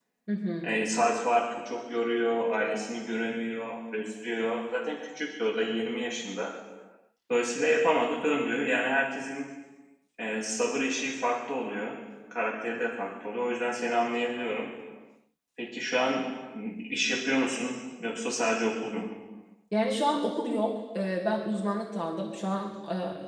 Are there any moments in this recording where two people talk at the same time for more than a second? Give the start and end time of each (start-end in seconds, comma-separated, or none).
none